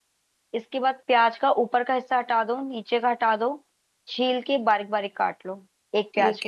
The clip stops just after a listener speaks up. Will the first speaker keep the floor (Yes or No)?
No